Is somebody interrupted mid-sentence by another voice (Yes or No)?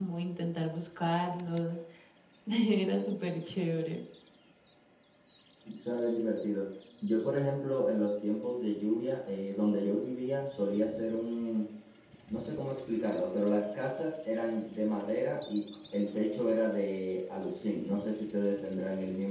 No